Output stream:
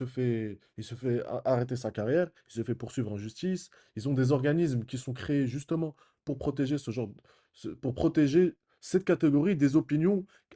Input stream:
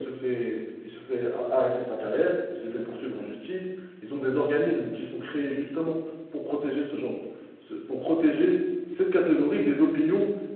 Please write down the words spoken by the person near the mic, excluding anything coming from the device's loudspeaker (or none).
none